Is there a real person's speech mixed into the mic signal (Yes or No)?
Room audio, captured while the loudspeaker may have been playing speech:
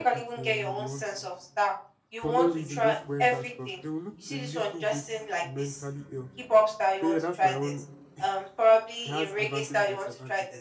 Yes